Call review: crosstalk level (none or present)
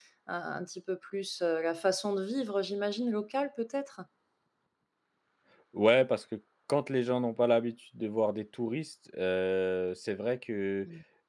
none